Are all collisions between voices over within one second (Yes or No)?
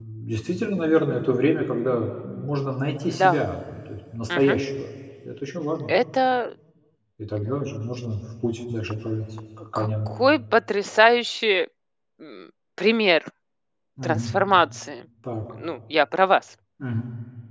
Yes